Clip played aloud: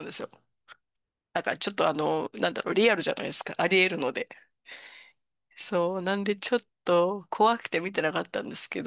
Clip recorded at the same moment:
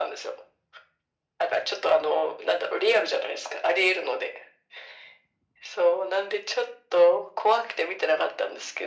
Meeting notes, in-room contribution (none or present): none